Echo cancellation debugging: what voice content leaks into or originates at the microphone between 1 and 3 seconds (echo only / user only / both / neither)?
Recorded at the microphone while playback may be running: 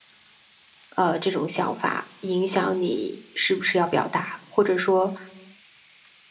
user only